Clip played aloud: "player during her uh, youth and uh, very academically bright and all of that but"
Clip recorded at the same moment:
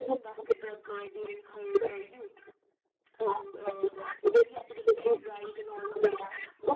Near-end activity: none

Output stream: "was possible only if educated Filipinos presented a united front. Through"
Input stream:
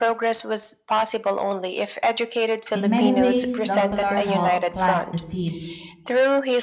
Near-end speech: present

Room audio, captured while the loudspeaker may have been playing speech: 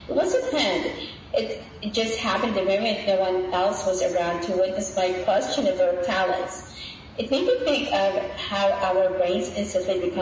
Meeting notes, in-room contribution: none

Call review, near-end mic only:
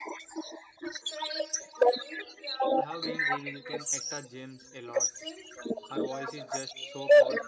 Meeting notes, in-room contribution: present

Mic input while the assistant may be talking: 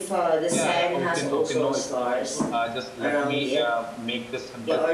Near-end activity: present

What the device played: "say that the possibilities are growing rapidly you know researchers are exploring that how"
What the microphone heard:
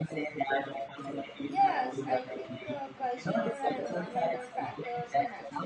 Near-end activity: present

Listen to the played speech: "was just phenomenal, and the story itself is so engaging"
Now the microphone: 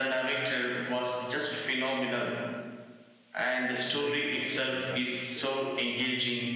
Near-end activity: present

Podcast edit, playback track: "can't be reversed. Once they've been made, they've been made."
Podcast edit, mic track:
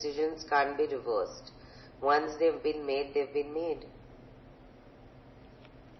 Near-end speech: none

